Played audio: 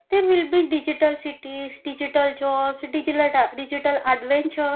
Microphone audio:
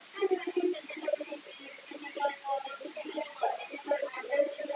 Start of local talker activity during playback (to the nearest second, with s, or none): none